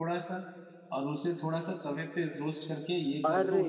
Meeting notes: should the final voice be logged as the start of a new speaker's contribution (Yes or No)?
No